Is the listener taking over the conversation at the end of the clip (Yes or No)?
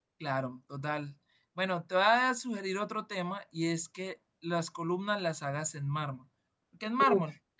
No